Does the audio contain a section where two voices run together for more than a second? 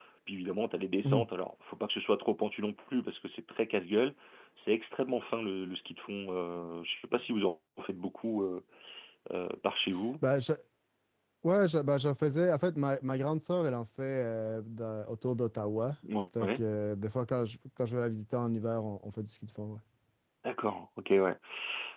No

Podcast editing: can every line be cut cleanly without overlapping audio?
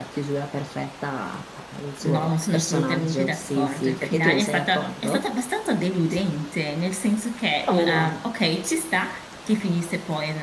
No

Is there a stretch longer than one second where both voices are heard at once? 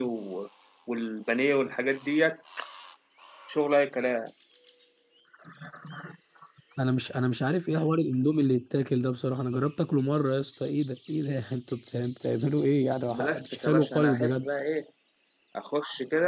Yes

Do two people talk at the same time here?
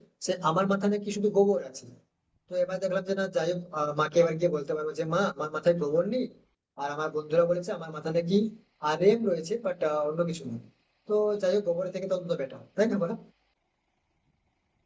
No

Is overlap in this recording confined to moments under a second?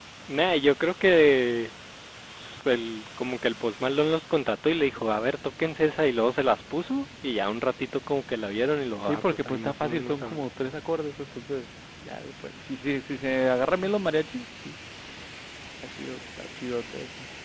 No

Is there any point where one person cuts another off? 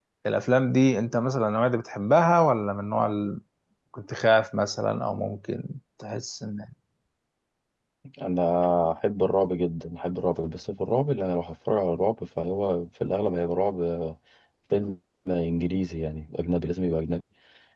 No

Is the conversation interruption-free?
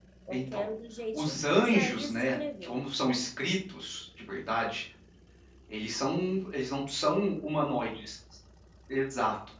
No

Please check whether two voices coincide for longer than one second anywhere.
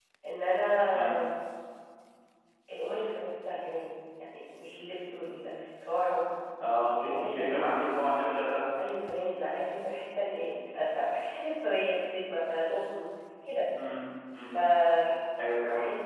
No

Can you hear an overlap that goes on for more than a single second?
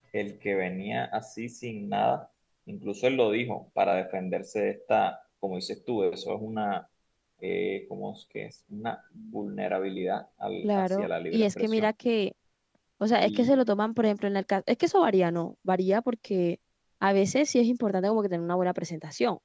Yes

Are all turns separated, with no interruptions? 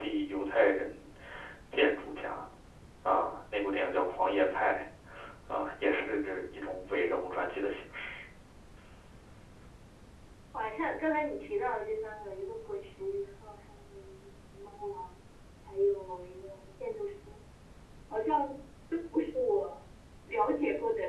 Yes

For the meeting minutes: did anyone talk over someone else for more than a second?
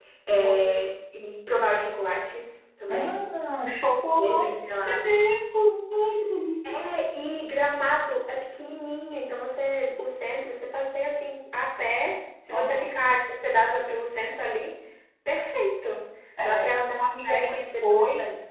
Yes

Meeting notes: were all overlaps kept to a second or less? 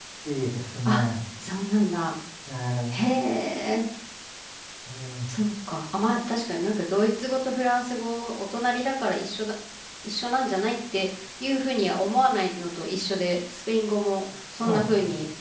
Yes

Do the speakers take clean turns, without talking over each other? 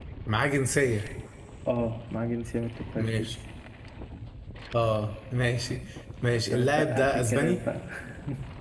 No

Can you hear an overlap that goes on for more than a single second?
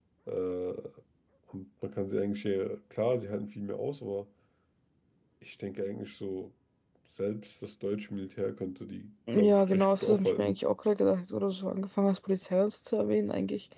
Yes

